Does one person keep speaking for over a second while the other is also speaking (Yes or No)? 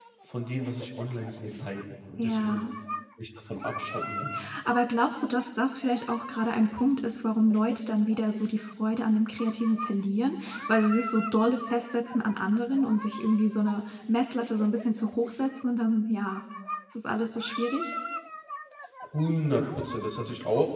No